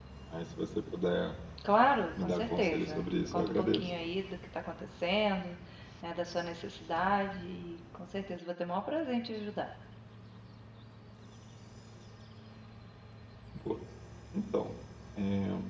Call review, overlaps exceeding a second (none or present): present